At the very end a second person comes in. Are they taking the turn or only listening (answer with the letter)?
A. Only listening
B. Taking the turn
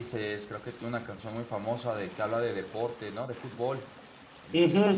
B